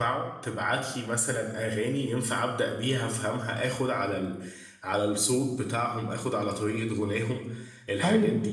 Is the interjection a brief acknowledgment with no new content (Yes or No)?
No